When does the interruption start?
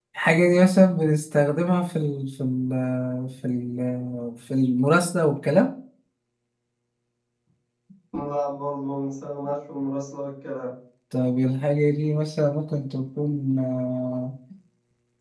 none

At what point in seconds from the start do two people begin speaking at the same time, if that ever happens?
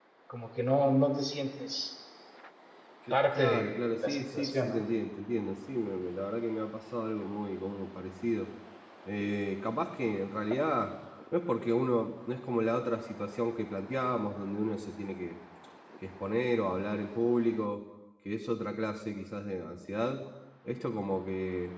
3 s

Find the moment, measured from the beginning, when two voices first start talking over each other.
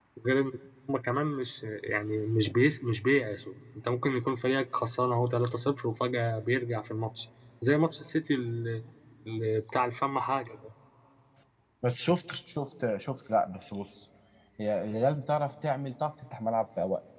none

